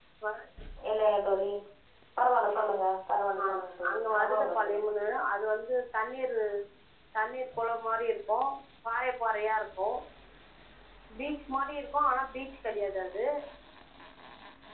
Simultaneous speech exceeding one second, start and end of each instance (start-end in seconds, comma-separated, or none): 3.5-4.9